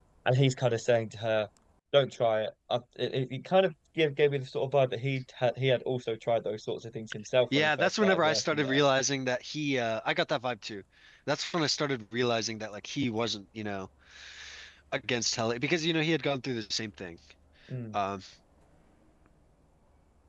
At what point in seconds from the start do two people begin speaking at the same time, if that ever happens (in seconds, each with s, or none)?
7.5 s